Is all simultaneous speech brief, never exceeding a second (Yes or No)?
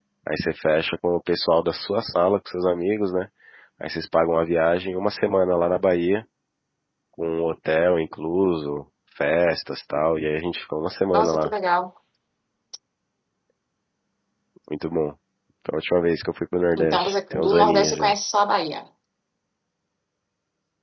No